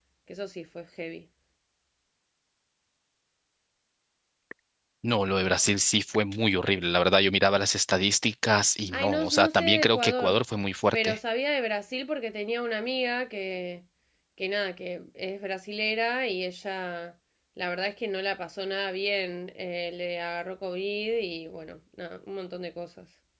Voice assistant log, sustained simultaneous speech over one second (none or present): present